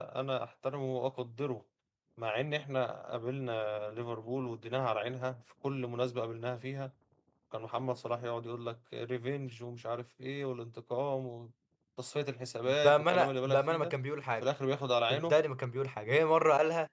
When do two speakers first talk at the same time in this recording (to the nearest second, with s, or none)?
13 s